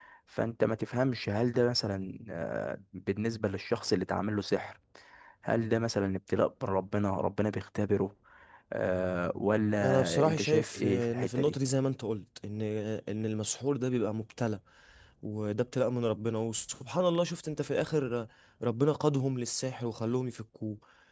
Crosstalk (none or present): present